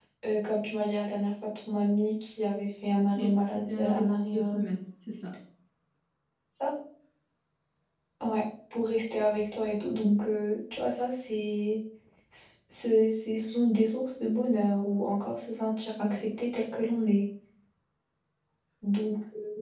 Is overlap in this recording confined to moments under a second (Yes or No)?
No